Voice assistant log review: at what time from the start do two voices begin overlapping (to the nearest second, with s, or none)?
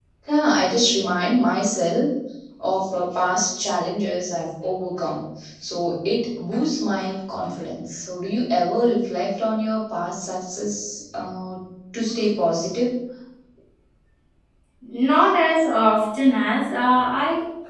none